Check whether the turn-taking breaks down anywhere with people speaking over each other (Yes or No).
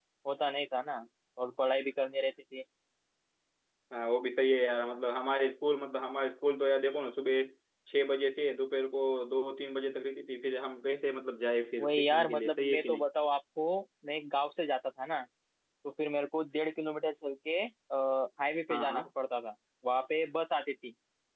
Yes